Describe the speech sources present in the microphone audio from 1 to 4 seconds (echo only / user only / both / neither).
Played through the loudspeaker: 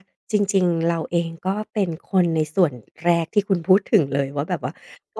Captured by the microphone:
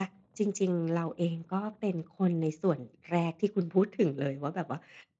echo only